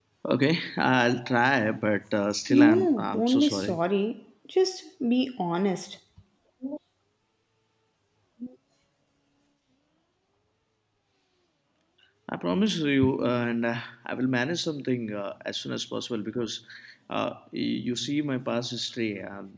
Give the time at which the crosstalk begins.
2.5 s

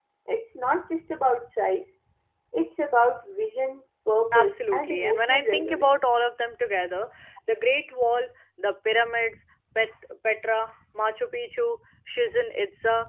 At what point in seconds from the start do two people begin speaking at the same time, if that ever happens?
4.3 s

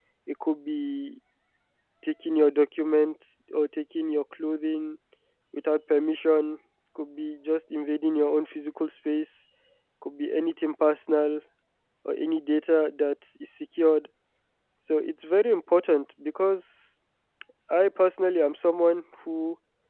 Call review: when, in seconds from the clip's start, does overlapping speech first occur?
none

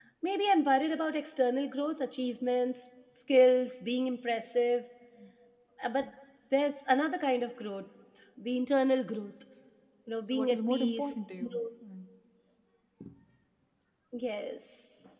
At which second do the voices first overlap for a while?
10.3 s

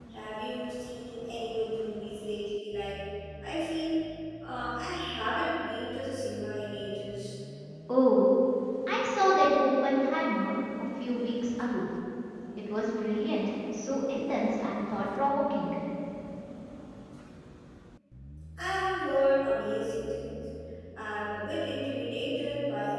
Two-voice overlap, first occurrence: none

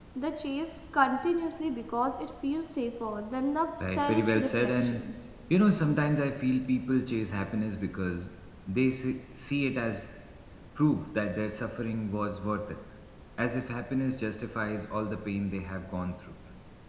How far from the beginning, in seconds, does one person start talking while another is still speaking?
3.8 s

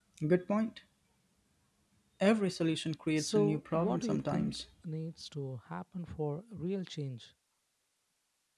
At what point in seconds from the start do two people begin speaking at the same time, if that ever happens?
3.2 s

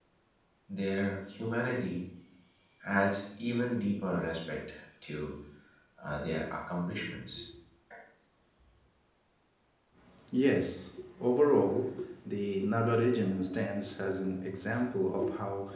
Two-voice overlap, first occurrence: none

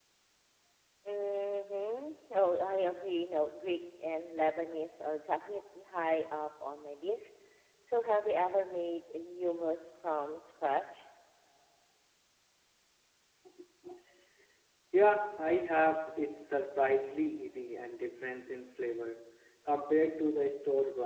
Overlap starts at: none

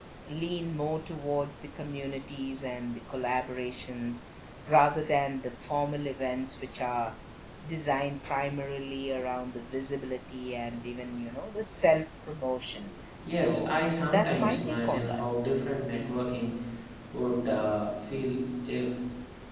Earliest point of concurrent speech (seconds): 13.2 s

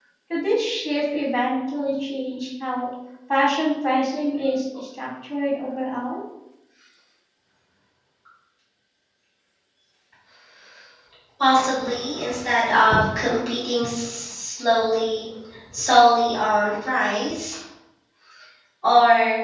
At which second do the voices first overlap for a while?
none

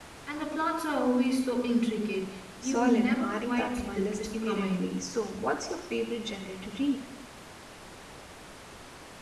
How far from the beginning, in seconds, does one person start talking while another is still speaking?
2.6 s

